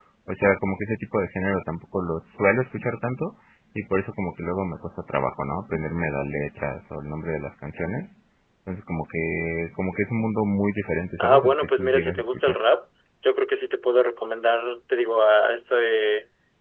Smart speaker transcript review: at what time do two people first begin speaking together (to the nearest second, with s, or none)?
11 s